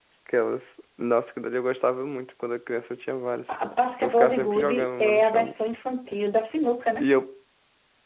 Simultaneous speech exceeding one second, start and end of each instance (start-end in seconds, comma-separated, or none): 4.0-5.5